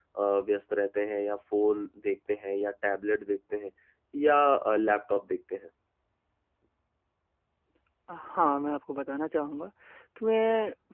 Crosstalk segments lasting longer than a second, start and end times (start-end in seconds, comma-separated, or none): none